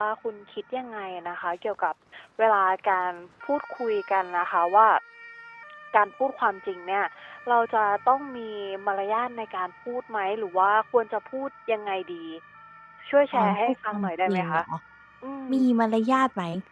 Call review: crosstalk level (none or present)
present